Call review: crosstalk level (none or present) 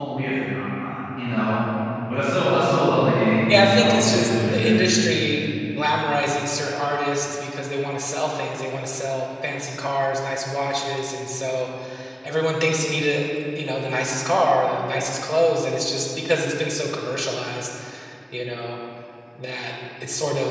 present